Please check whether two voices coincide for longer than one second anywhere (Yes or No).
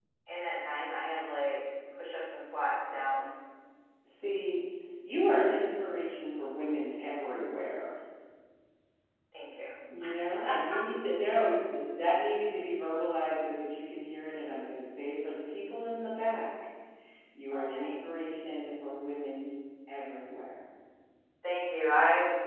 No